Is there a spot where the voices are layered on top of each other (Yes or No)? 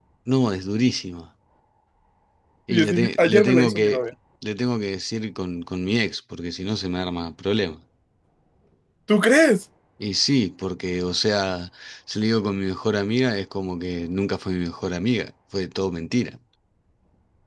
Yes